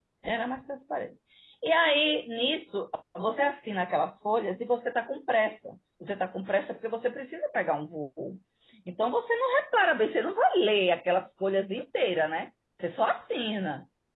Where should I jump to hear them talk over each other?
none

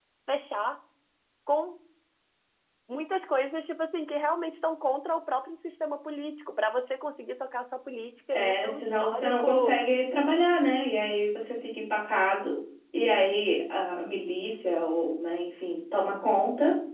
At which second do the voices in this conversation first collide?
8.3 s

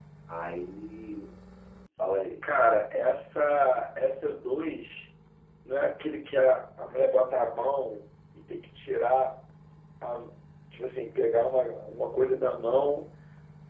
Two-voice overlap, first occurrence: none

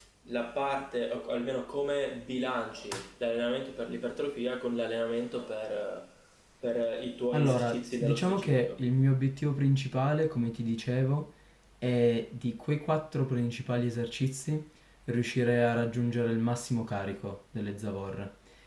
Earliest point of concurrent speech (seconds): 7.3 s

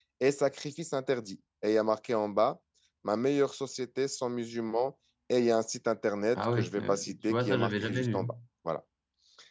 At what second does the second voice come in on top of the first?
6.3 s

